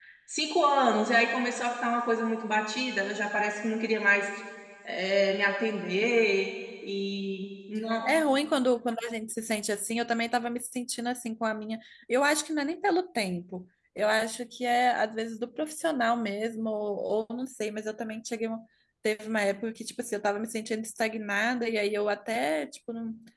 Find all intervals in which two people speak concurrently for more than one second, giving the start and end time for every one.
none

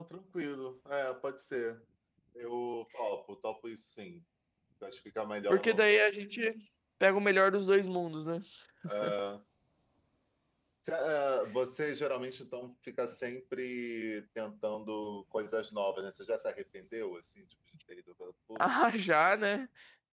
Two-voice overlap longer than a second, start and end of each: none

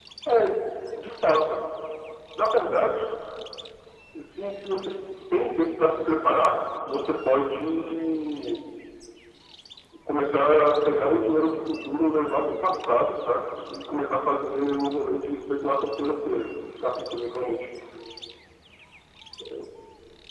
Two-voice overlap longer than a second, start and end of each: none

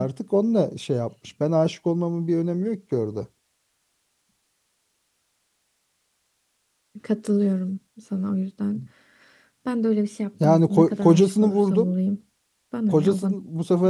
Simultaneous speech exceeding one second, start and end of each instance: 10.4-11.9

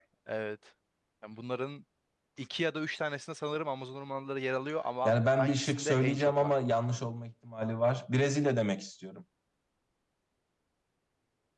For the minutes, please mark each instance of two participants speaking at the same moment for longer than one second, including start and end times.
5.0-6.5

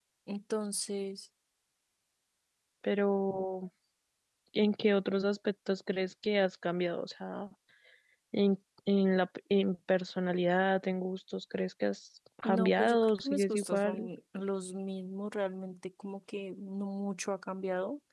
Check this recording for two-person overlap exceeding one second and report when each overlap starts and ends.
12.4-14.1

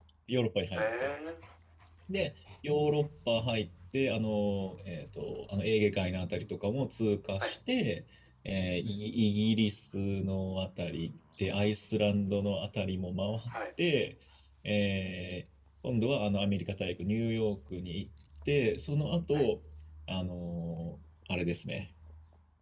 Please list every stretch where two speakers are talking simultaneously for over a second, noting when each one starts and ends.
none

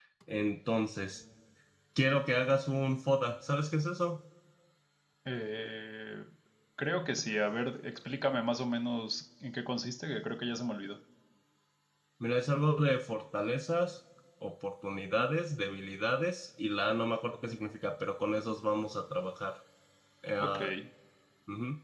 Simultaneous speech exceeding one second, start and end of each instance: none

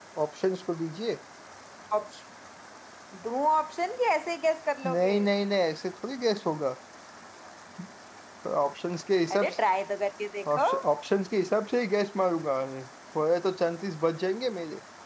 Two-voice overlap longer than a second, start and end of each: none

